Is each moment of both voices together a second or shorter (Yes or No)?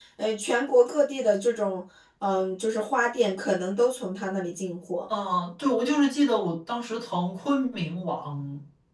Yes